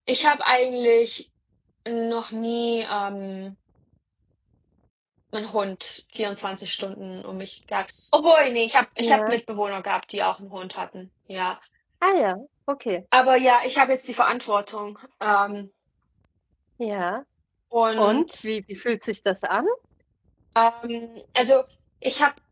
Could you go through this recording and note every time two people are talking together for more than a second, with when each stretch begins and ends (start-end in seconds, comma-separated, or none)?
none